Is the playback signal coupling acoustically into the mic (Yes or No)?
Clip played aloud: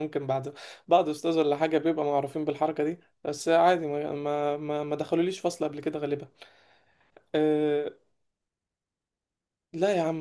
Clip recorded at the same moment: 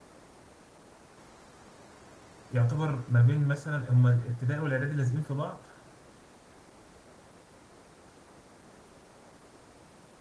No